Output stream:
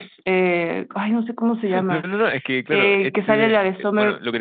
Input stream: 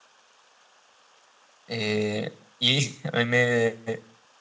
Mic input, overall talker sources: user only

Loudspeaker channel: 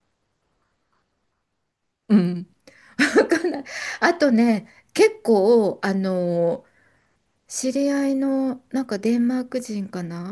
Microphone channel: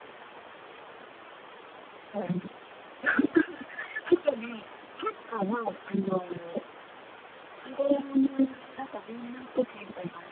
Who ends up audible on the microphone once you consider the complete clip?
echo only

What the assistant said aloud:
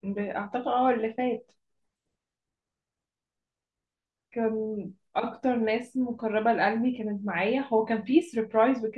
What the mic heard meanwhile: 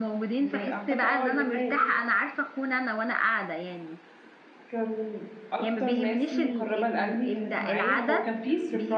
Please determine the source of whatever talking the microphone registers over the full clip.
both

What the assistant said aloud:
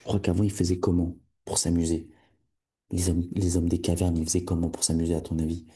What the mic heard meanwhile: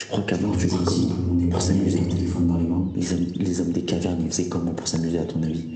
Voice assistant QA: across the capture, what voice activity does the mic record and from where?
both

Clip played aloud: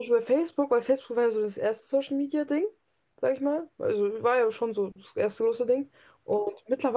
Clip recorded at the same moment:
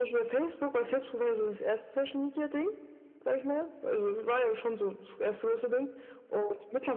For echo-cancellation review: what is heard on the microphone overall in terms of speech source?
echo only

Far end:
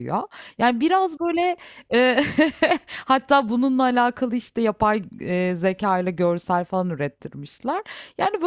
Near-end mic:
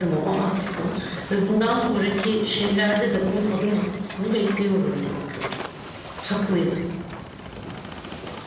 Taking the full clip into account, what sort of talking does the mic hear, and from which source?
user only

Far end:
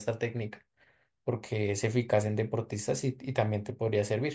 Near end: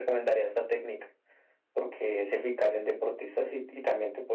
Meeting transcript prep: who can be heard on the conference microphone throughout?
echo only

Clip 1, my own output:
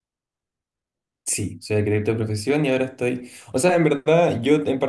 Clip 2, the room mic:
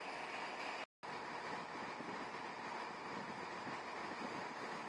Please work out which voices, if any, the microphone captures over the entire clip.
neither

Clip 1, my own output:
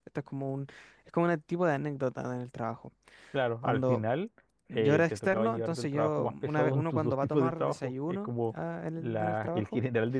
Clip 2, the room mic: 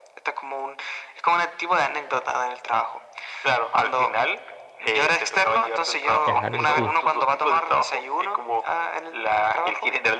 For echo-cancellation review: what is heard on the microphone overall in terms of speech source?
both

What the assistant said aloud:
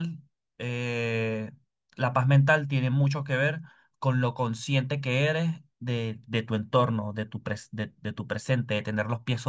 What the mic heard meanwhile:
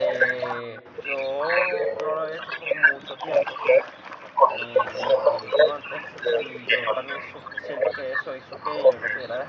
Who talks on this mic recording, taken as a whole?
both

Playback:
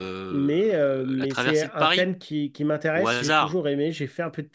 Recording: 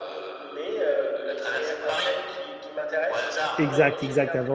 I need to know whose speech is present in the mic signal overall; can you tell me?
both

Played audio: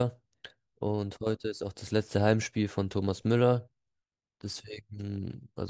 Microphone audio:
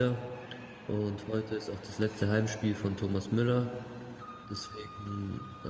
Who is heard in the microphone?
echo only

